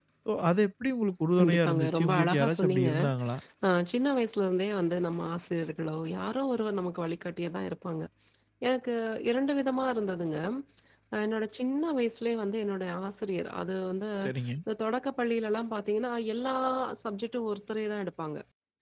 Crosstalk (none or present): present